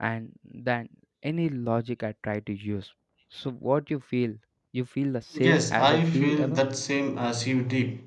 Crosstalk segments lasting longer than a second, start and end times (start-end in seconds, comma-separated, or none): 5.4-6.6